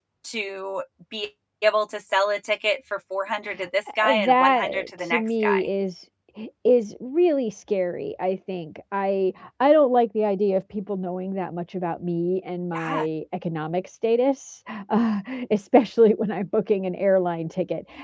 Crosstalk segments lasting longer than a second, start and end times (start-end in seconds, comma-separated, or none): 4.0-5.7